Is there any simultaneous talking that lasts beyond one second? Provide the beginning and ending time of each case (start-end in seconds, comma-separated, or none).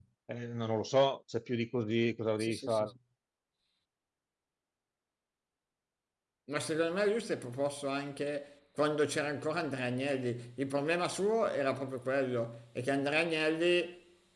none